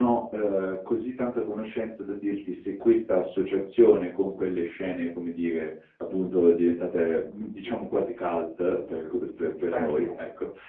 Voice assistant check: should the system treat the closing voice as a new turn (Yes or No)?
No